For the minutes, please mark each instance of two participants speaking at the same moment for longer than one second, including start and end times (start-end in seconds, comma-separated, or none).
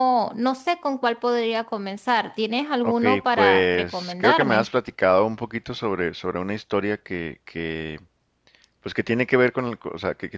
2.8-4.7